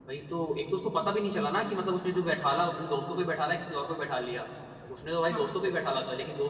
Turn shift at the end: No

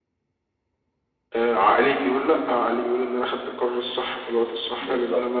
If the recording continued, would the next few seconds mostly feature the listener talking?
Yes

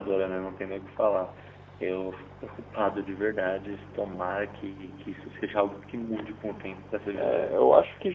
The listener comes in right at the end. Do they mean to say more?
Yes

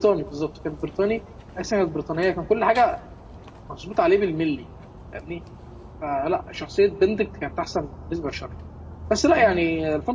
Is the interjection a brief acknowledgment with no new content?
Yes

